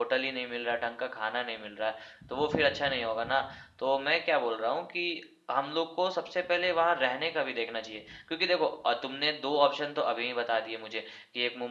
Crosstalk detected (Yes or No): No